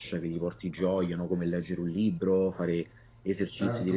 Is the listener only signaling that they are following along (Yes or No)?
Yes